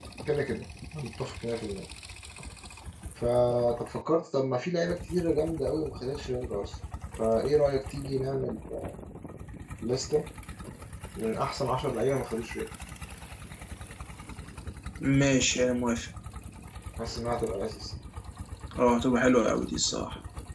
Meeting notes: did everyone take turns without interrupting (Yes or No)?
Yes